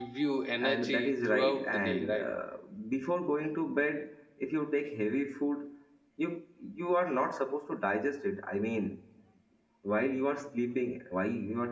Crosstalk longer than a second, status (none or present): present